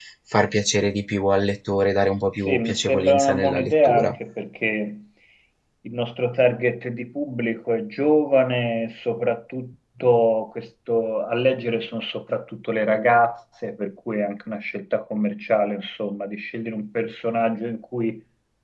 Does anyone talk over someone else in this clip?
Yes, from 2.4 s

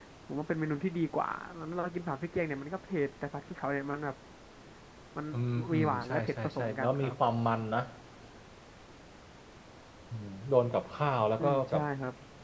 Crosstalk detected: Yes, from 5.7 s

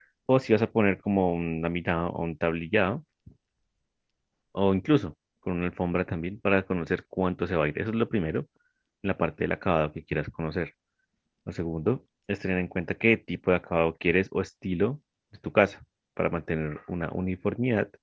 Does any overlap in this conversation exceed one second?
No

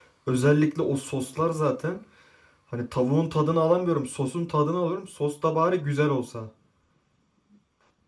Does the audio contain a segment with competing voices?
No

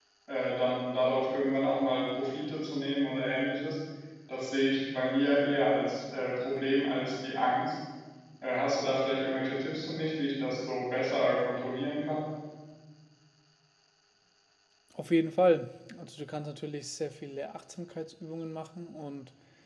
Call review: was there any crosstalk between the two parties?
No

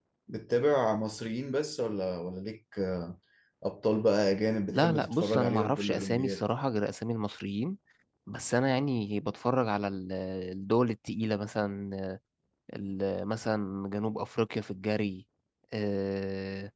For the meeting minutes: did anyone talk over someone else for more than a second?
Yes, from 4.7 s

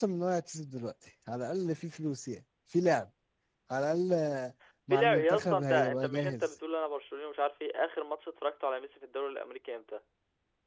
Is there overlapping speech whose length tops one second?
Yes, from 4.9 s

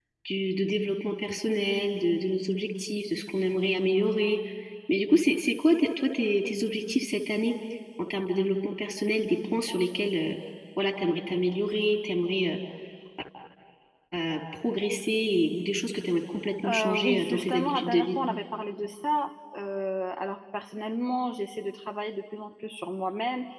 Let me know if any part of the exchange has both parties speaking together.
Yes, from 16.6 s

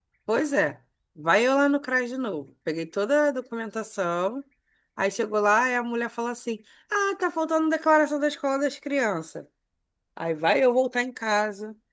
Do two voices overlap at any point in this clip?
No

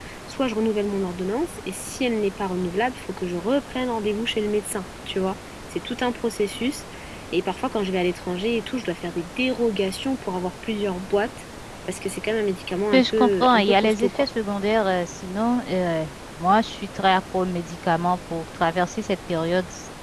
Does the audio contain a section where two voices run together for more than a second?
Yes, from 12.9 s

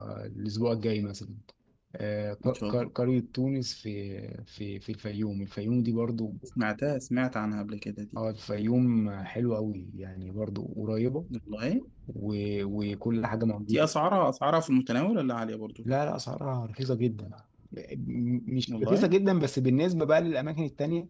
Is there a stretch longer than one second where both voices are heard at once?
No

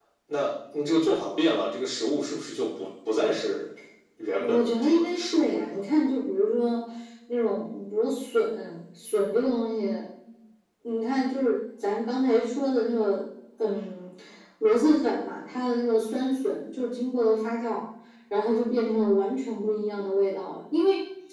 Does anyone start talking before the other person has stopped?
Yes, from 4.4 s

